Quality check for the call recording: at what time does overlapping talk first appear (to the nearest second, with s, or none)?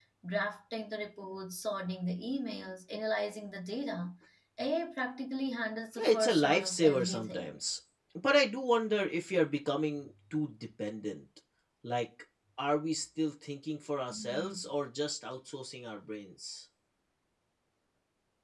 6 s